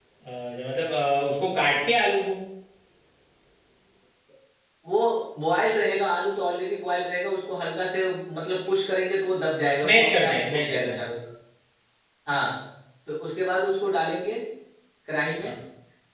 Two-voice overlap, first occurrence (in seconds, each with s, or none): 9.6 s